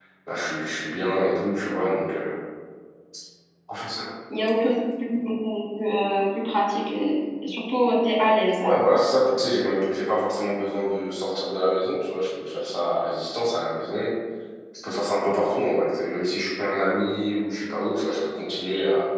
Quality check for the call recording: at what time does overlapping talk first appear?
none

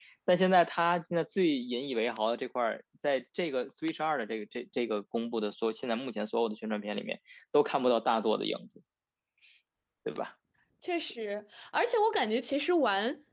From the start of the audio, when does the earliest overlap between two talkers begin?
none

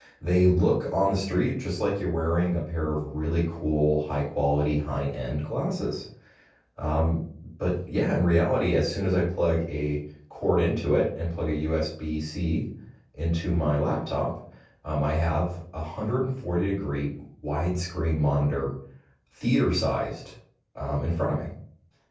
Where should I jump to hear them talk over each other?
none

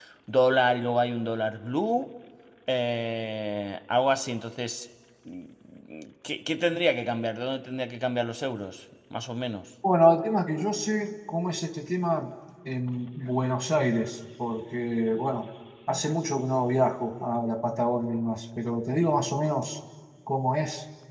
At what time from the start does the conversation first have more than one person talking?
none

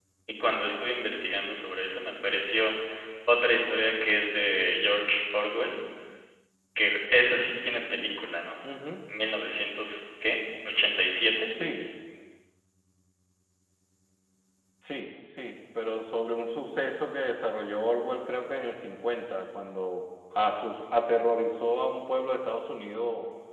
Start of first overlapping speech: none

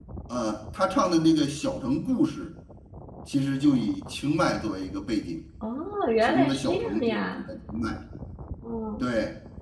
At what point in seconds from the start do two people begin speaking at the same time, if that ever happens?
6 s

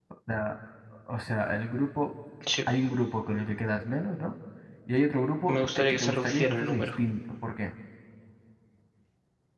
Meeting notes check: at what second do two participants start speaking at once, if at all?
5 s

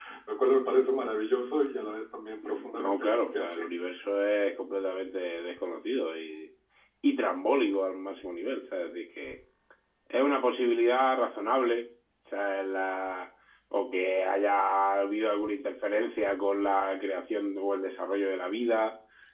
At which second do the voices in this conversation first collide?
2 s

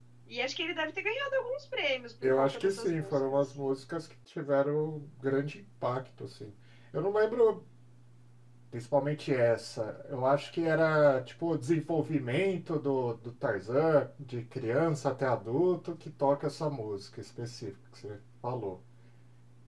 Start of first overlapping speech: 2 s

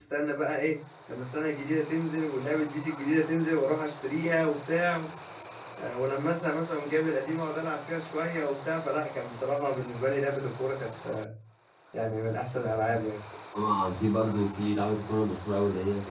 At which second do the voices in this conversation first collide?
none

